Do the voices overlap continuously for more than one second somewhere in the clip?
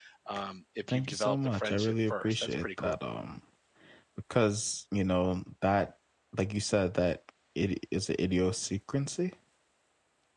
Yes, from 0.9 s

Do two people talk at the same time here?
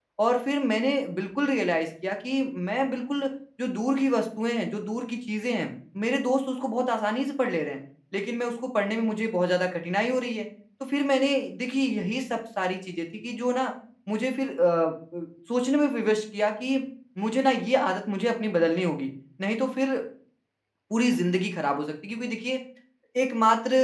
No

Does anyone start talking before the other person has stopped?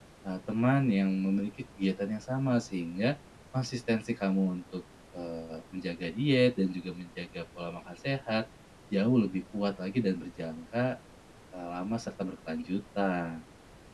No

